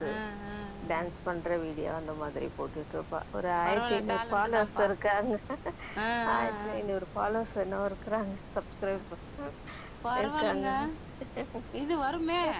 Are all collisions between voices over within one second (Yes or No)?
No